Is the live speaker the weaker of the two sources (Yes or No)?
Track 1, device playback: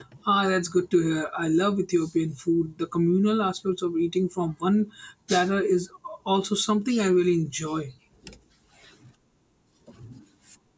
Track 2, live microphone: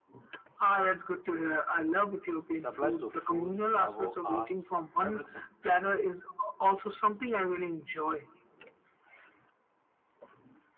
Yes